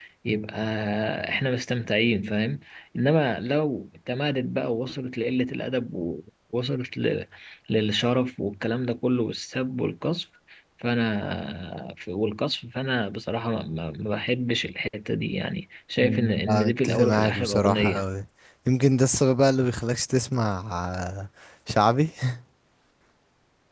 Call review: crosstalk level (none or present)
present